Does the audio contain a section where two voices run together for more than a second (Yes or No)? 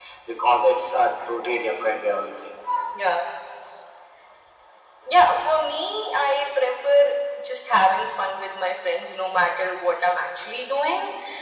No